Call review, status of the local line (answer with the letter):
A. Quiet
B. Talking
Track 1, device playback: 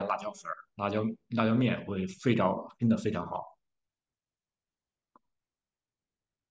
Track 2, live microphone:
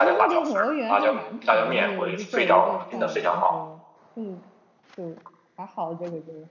B